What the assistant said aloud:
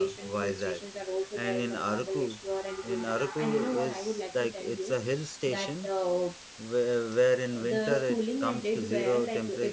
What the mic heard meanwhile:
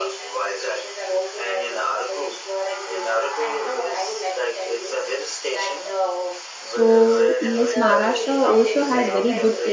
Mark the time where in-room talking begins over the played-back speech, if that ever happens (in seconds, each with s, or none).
6.6 s